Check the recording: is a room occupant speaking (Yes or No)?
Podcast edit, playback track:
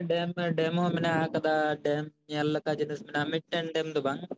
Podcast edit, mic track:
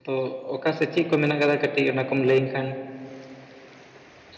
Yes